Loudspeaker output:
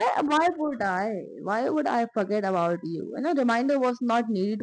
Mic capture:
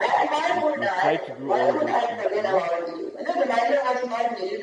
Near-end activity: present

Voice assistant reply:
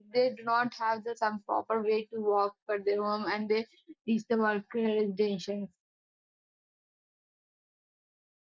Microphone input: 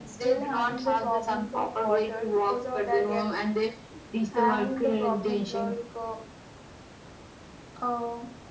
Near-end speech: present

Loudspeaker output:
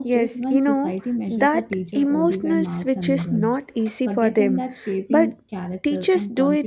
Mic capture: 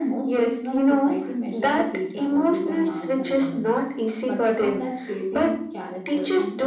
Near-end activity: none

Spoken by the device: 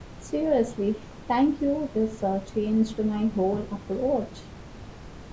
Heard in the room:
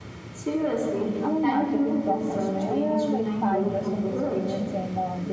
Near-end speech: present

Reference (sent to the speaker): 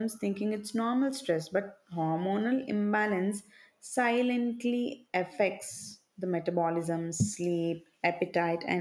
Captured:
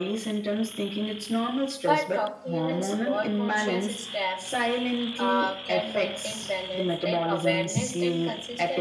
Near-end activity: present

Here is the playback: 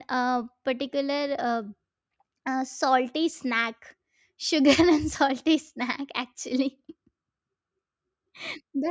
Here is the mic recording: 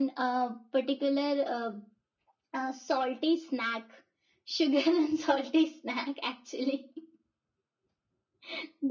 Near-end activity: none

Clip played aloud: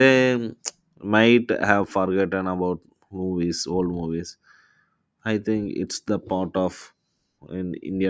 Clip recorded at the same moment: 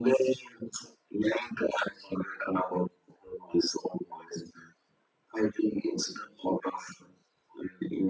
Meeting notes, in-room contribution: none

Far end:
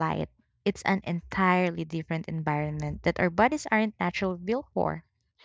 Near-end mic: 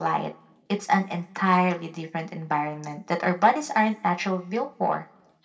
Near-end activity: none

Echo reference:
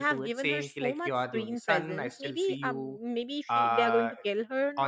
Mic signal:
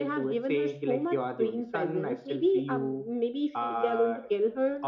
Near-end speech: none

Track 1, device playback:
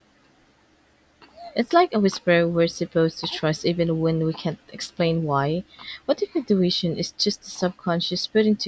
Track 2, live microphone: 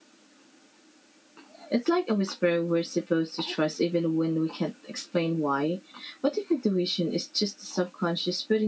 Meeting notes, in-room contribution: none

